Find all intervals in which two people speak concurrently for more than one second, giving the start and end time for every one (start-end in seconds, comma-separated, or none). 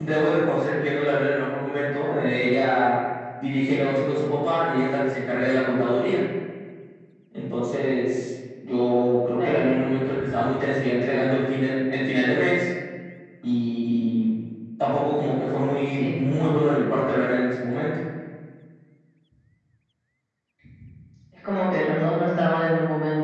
none